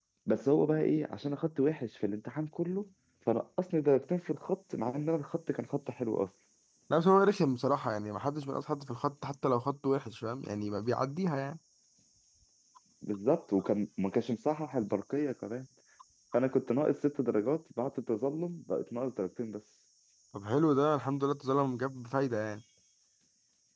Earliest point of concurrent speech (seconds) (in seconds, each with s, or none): none